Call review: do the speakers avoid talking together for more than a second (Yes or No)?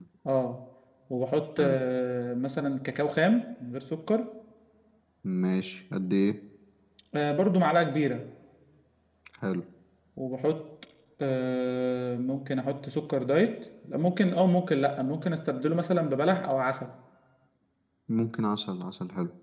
Yes